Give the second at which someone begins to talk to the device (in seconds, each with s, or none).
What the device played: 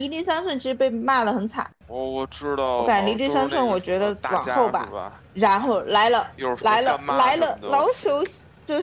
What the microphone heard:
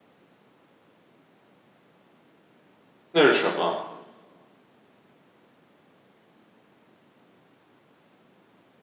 3.1 s